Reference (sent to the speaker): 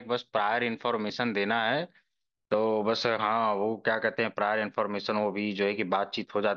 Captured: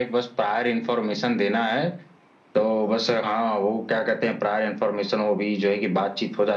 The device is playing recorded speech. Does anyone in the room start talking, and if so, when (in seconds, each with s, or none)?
none